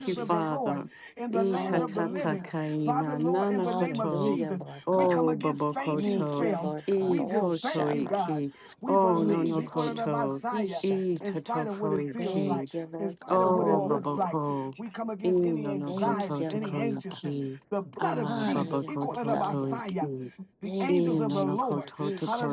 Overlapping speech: Yes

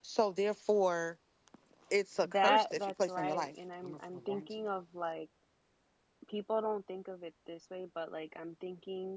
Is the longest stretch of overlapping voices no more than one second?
No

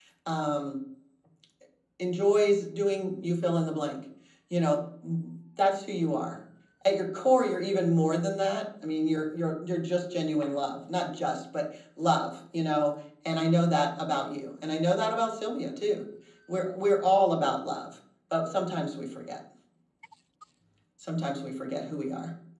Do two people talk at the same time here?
No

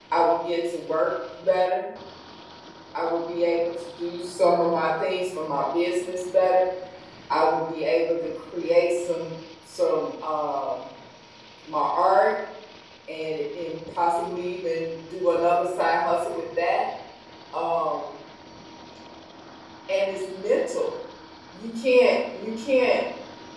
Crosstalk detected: No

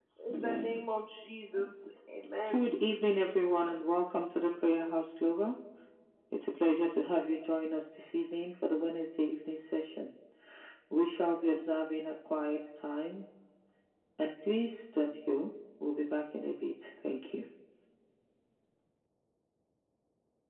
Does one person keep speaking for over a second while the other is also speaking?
No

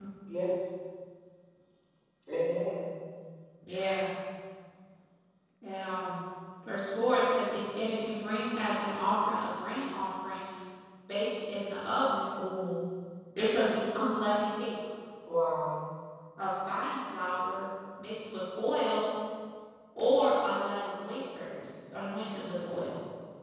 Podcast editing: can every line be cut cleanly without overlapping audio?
Yes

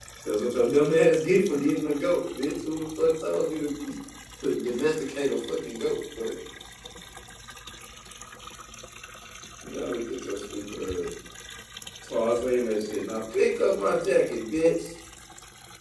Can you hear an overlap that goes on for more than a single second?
No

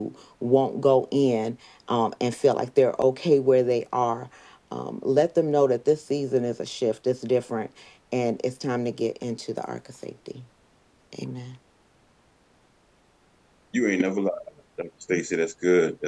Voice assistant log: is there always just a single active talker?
Yes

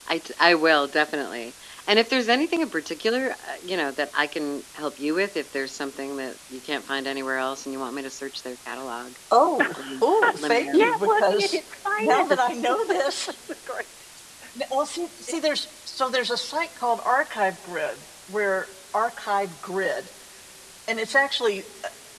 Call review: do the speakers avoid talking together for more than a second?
No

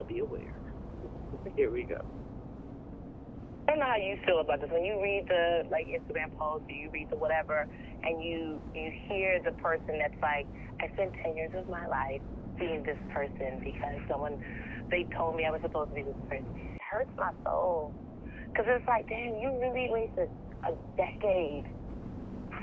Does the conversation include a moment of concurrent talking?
No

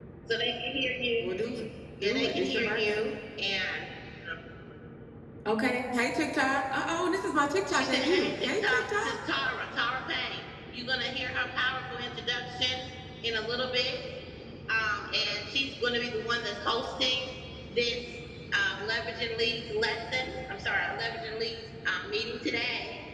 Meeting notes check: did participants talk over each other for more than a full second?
Yes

